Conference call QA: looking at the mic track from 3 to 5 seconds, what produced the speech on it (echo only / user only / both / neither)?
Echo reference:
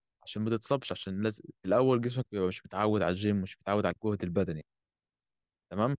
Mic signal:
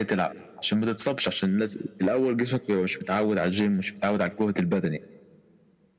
echo only